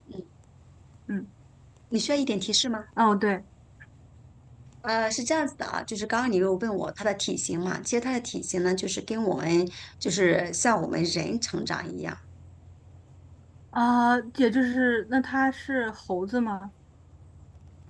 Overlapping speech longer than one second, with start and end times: none

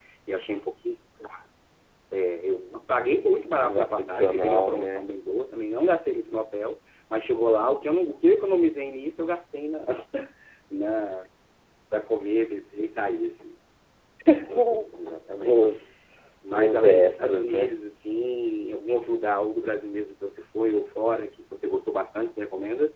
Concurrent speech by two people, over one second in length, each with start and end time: 3.5-5.0, 16.5-17.7

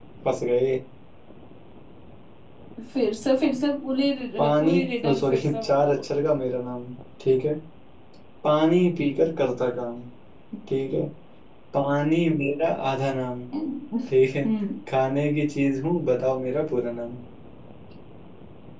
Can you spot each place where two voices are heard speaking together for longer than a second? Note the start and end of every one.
4.4-6.0

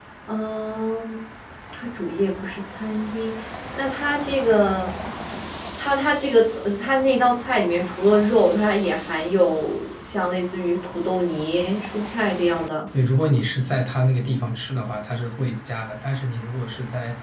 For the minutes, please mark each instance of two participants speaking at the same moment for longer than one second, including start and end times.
none

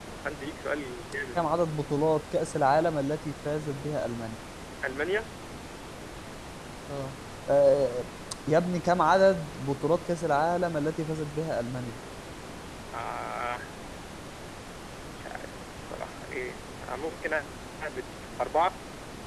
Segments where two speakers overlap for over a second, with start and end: none

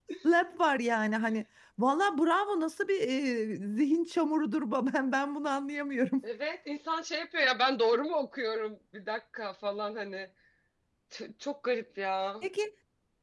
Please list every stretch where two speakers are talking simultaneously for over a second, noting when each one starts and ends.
none

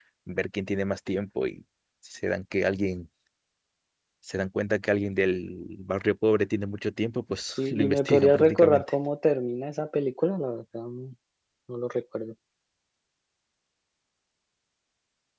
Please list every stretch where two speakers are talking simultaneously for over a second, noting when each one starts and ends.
7.6-8.9

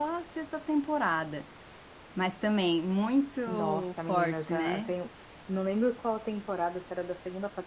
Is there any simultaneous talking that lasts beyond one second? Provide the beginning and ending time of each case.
3.5-4.9

